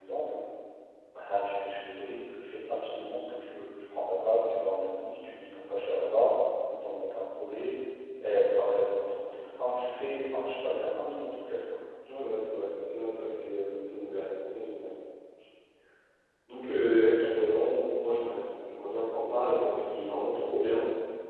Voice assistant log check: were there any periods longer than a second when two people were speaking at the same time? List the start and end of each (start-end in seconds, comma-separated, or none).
none